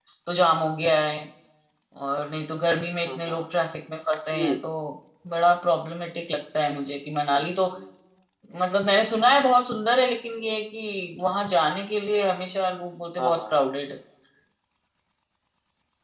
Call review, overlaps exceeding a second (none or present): none